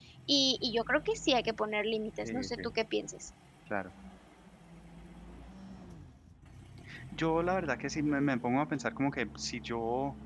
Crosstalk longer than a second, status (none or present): none